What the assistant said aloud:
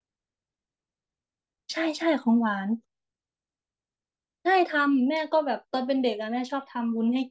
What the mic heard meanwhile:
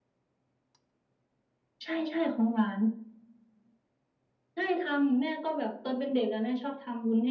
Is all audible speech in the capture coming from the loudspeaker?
Yes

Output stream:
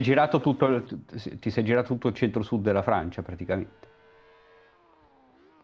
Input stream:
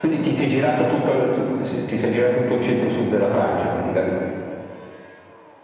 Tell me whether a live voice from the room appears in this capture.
No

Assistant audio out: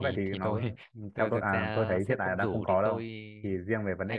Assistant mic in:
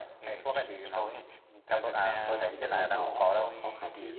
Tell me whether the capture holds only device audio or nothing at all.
No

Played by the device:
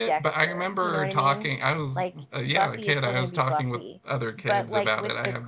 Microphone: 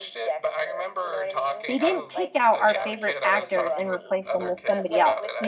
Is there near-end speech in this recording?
Yes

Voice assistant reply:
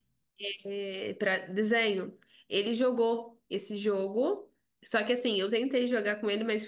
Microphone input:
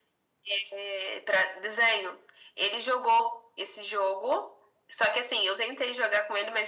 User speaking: No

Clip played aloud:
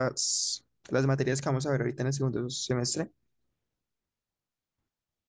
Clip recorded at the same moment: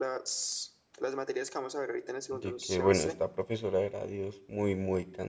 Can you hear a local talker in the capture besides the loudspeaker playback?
Yes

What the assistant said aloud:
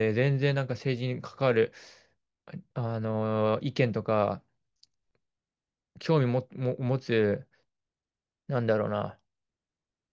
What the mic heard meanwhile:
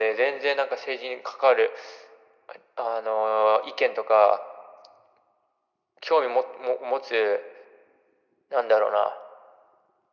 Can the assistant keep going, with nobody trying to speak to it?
Yes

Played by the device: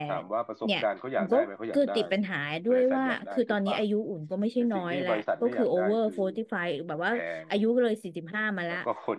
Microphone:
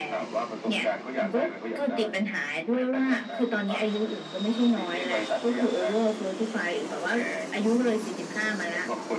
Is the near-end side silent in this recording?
Yes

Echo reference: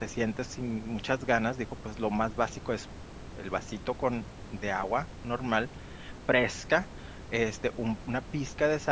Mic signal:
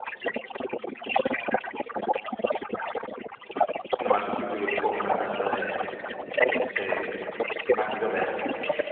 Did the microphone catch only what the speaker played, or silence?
No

